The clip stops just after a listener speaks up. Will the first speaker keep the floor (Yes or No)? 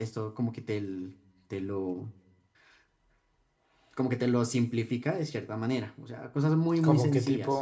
No